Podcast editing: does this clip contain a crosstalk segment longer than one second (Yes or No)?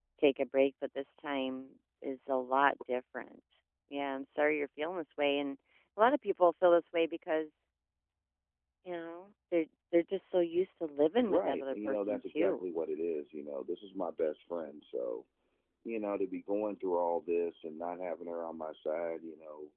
Yes